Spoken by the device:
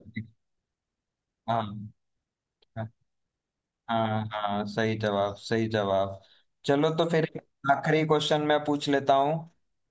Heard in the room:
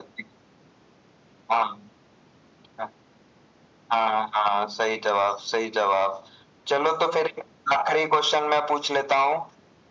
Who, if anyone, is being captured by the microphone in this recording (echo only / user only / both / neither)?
echo only